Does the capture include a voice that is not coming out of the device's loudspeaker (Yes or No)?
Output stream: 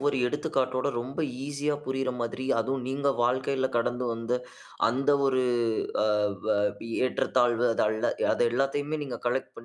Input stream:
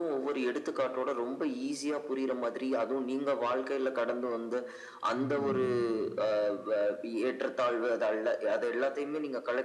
Yes